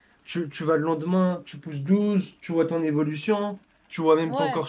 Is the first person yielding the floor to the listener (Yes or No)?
No